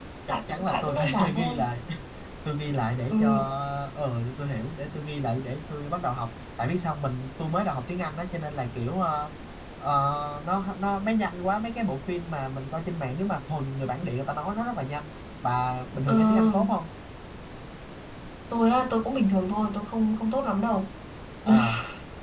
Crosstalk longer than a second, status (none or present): present